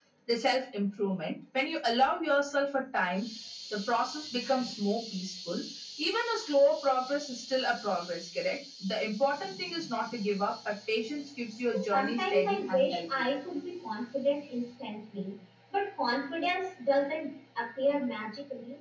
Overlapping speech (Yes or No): Yes